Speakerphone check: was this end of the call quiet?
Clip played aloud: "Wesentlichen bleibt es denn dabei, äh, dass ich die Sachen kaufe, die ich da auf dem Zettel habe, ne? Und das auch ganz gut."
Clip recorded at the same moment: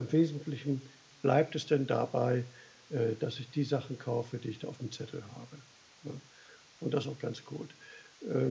Yes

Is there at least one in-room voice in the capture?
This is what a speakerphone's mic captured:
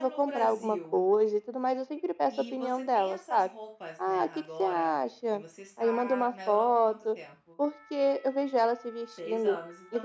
Yes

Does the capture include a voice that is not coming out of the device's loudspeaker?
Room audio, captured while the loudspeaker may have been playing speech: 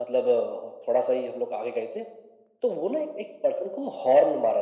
No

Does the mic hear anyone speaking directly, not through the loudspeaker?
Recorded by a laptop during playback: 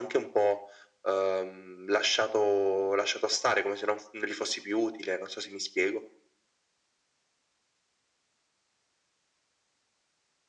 No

